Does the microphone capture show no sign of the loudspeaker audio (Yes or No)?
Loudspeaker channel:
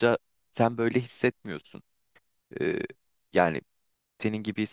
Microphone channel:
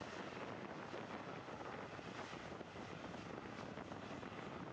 Yes